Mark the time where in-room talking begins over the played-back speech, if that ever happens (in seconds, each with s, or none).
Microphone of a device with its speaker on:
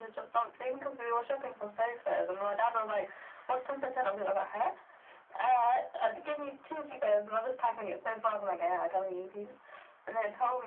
none